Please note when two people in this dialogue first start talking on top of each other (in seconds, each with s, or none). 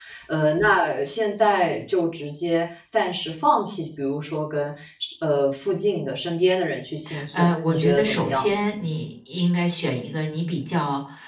7.3 s